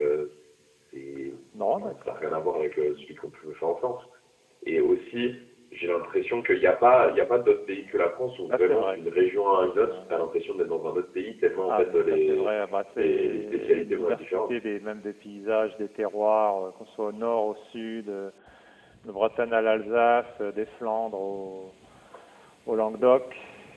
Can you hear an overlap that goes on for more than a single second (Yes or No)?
Yes